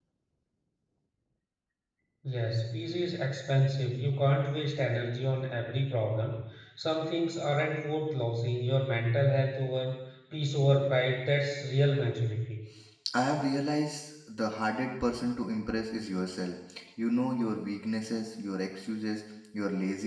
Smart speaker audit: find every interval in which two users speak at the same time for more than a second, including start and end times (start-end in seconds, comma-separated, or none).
none